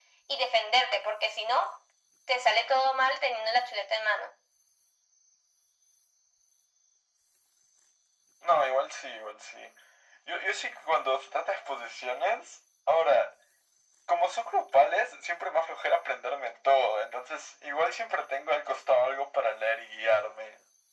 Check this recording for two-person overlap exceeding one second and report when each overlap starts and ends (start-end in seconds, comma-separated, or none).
none